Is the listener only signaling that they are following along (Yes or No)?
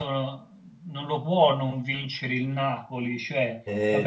Yes